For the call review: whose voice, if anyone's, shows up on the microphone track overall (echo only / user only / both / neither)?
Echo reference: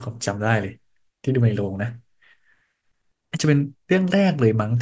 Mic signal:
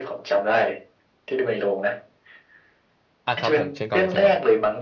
both